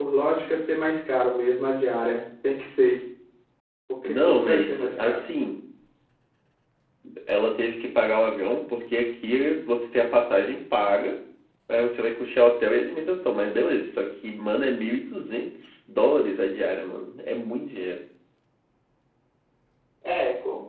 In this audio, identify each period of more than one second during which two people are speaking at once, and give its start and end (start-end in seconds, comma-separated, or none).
4.0-5.3